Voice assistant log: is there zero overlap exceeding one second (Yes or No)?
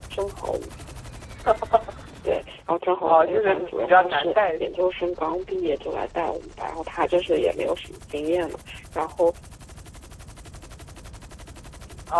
No